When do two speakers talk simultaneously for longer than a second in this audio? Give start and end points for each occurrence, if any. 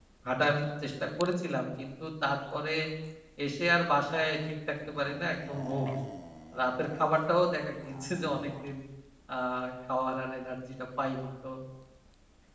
none

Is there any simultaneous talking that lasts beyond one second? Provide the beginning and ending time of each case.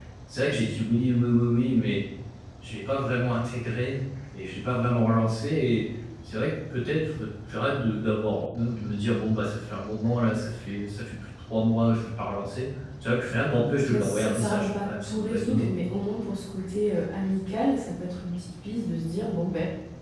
13.9-15.7

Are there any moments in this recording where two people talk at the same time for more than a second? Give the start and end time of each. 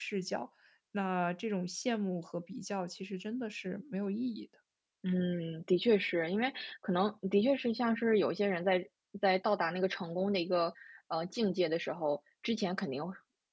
none

